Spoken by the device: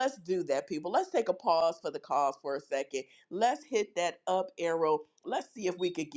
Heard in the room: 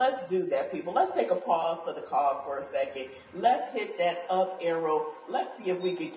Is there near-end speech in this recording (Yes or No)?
No